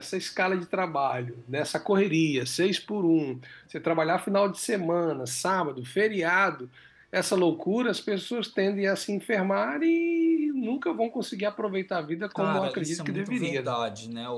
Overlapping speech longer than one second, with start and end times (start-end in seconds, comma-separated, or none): 12.3-13.7